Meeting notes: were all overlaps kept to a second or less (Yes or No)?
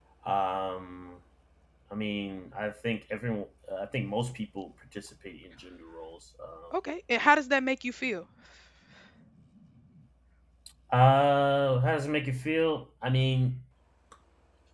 Yes